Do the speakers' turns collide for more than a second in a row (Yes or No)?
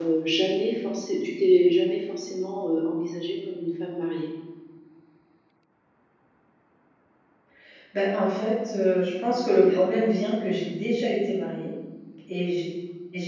No